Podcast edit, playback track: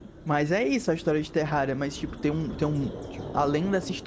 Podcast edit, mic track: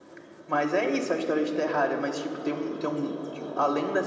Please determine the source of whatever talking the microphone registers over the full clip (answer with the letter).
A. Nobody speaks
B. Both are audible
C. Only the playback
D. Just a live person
C